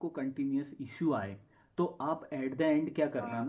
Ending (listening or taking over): listening